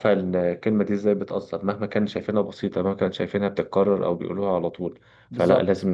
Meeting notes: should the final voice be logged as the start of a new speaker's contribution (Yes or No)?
No